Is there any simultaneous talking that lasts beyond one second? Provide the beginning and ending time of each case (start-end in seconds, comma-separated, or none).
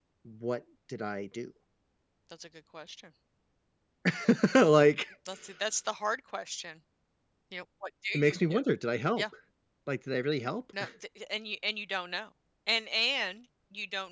none